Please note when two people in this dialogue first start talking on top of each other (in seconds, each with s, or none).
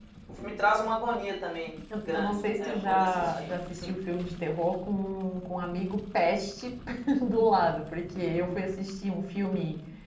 1.9 s